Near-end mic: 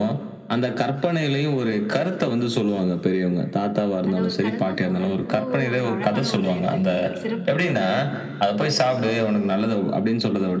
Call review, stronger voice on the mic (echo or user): echo